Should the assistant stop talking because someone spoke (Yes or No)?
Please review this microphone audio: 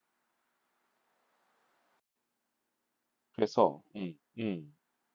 Yes